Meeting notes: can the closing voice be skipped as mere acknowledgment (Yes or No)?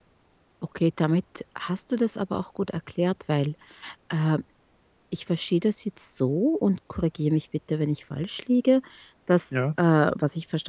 Yes